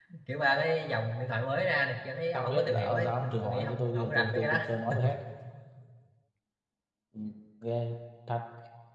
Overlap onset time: 2.3 s

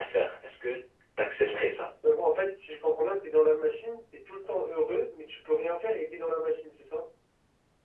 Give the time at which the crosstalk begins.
none

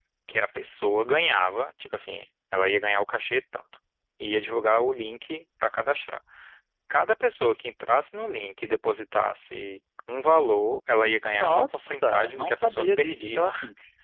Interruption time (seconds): 11.3 s

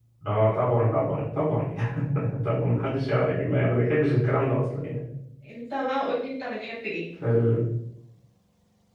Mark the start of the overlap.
none

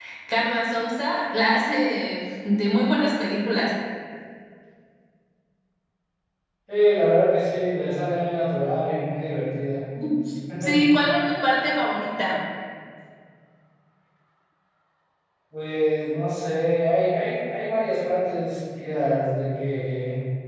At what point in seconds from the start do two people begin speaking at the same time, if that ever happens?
none

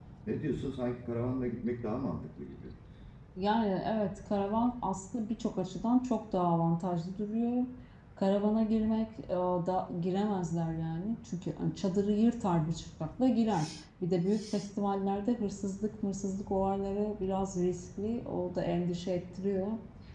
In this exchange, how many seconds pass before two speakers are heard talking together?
none

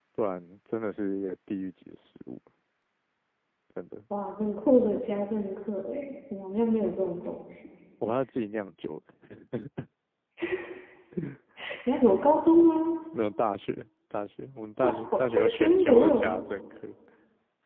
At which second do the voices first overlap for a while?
14.8 s

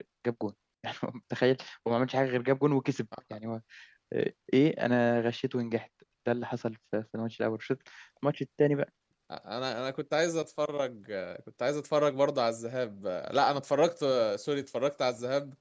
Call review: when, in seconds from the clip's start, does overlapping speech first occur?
none

